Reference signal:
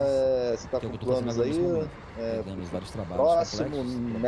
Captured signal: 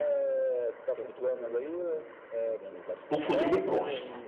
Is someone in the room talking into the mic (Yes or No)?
Yes